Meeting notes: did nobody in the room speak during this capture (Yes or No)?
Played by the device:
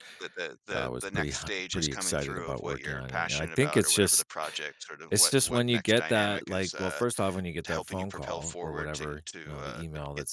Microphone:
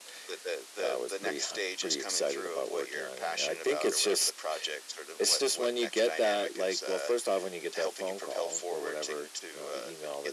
Yes